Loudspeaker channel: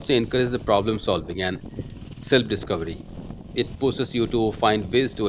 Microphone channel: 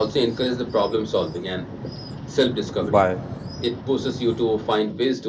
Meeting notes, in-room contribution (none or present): present